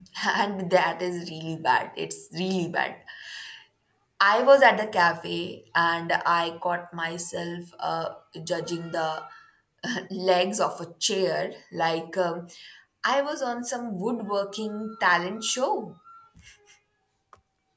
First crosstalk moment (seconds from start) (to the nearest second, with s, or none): none